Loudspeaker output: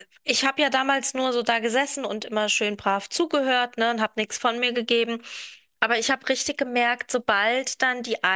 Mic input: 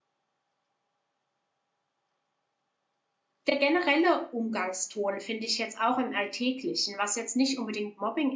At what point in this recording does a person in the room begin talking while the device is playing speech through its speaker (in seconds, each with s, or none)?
3.5 s